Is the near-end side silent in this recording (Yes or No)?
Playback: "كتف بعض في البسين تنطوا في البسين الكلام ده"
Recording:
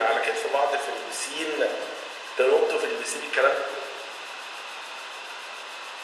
Yes